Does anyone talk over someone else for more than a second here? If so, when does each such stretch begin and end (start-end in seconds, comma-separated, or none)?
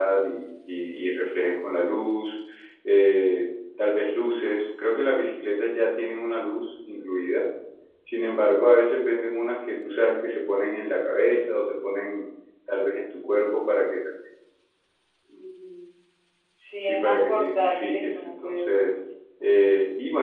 16.8-19.0